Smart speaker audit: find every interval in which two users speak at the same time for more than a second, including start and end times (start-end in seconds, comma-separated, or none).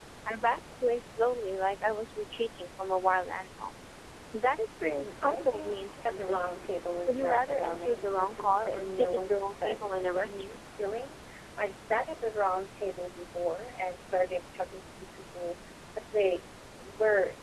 4.8-6.4, 7.1-10.5